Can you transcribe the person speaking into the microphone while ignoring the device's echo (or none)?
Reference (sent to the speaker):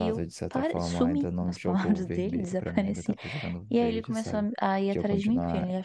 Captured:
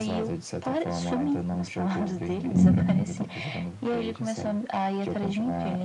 Hum,